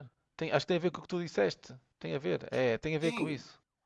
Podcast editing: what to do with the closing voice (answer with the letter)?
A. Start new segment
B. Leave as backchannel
A